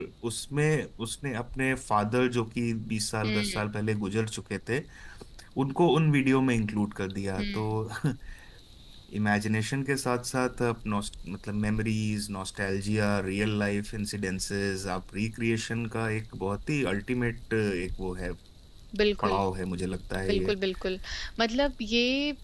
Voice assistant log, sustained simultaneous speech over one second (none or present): none